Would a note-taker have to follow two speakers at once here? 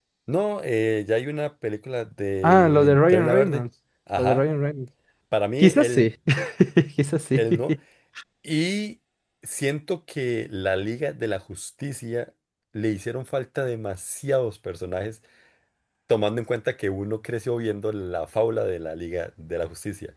Yes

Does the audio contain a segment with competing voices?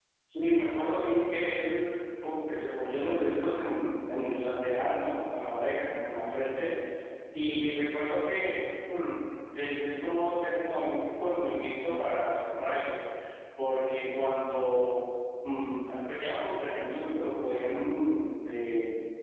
No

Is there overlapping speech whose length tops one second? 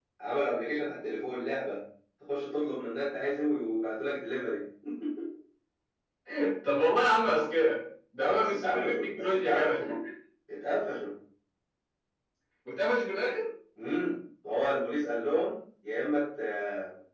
Yes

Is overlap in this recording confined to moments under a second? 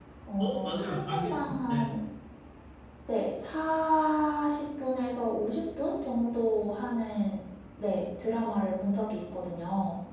No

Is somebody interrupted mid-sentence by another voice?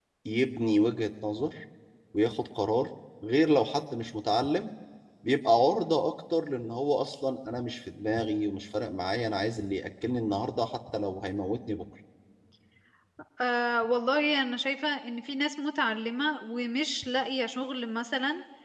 No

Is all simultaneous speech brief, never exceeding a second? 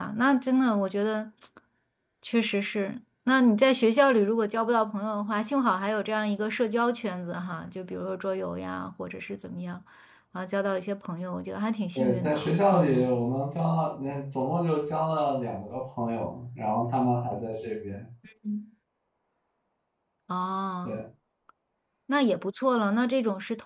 No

